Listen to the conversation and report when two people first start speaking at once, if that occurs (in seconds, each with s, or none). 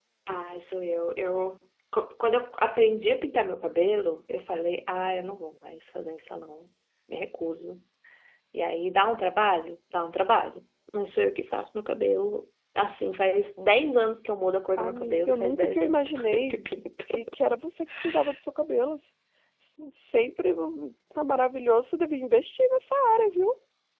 14.8 s